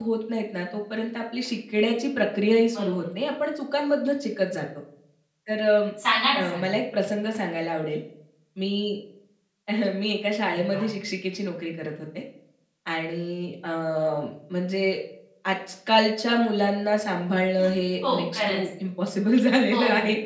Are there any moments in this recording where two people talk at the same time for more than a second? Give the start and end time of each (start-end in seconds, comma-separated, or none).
none